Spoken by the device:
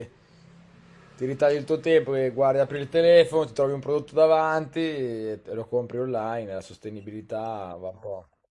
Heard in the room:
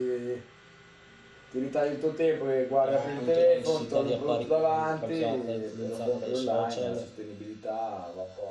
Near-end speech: present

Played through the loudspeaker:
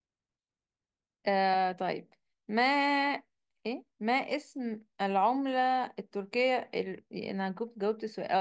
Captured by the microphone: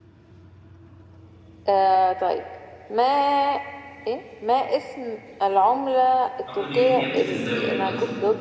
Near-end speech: present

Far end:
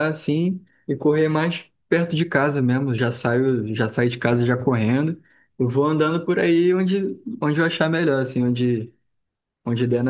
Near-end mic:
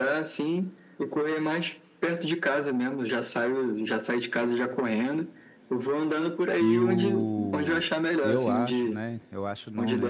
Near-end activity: present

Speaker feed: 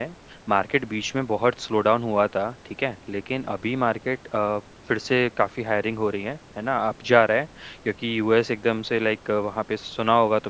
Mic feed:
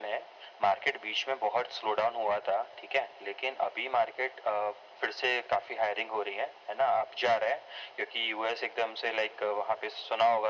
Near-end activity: none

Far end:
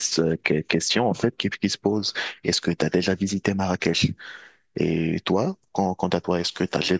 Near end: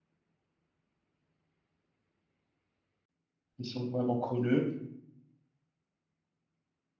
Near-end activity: present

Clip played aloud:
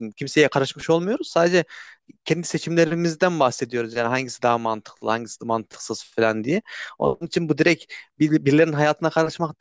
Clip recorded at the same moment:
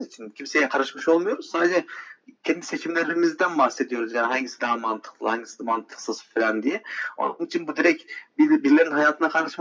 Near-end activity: none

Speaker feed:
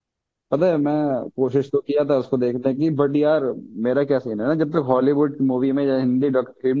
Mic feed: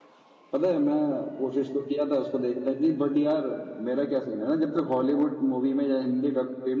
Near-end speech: none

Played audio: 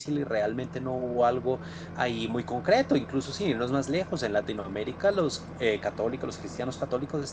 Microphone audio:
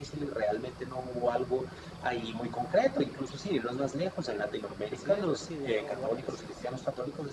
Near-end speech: present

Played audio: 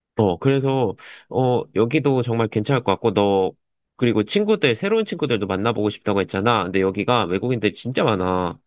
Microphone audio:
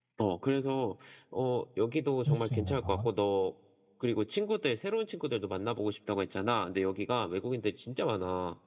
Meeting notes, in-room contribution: present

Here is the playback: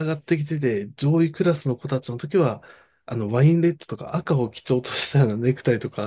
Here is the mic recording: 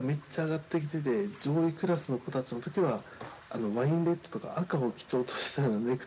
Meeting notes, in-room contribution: none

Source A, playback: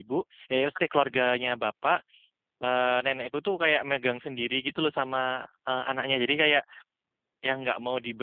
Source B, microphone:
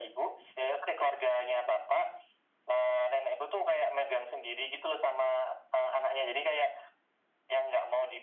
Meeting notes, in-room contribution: none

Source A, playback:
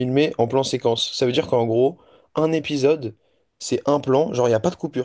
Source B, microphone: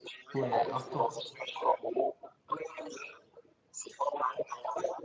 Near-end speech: present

